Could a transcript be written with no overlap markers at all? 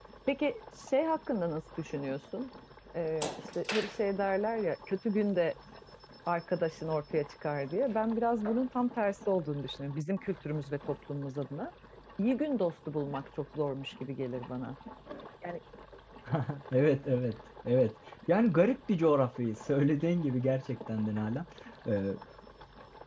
Yes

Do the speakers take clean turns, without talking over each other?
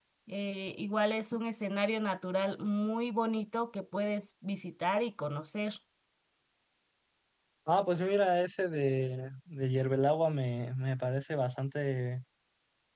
Yes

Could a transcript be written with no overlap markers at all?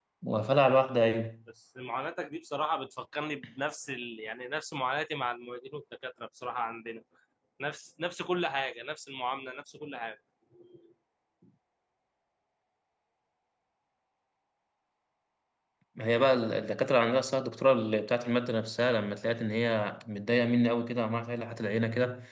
Yes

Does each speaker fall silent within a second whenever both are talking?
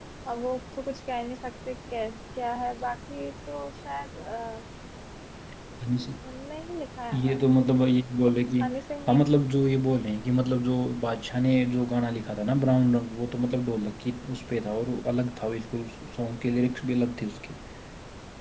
Yes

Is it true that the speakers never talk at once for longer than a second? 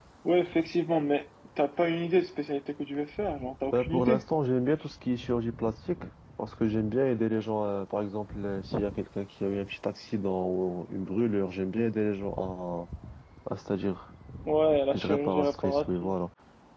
No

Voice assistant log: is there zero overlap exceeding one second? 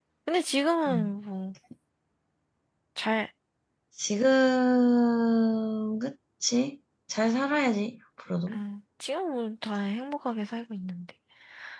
Yes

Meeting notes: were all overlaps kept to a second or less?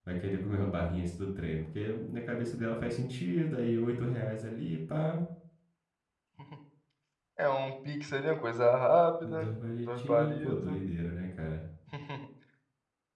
No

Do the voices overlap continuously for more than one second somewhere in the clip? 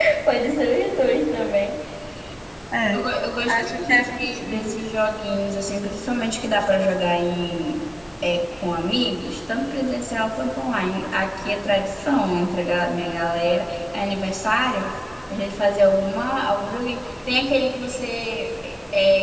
Yes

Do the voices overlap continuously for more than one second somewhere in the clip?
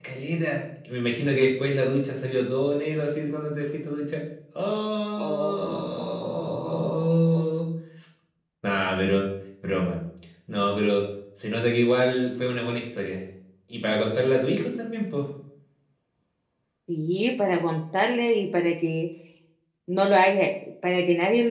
Yes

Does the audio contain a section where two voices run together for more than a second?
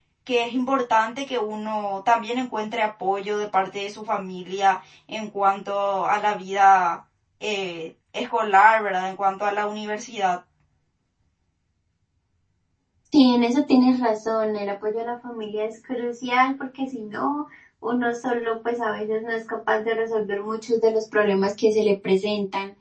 No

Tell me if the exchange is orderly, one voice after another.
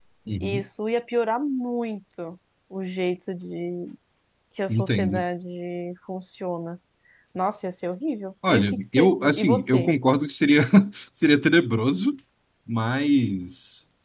No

